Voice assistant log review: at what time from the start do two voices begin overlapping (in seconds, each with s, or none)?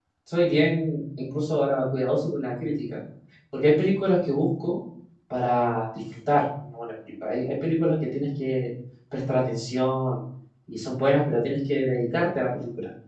none